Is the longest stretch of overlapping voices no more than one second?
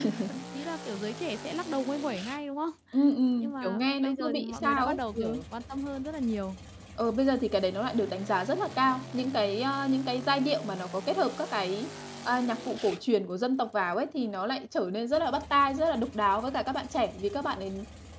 No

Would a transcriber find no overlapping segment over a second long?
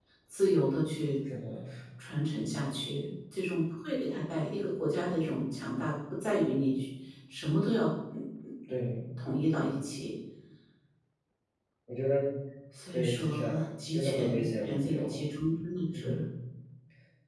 No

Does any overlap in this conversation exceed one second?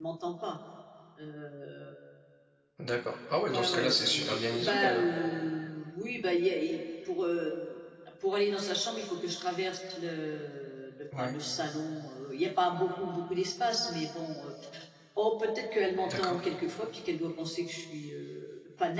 Yes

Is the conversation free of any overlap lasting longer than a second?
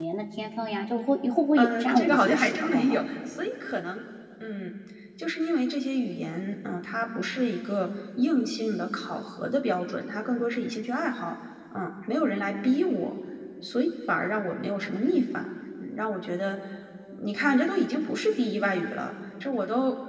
No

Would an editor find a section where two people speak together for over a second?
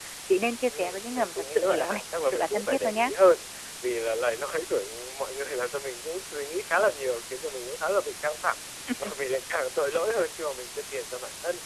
Yes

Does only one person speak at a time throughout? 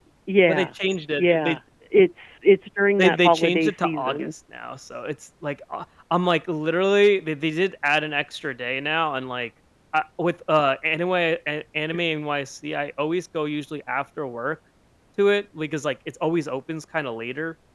No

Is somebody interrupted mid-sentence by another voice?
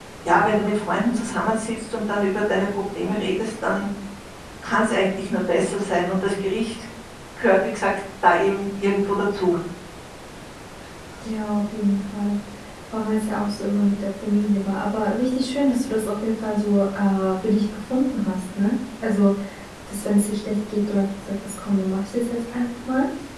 No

